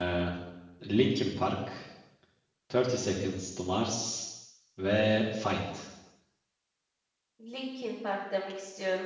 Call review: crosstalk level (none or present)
none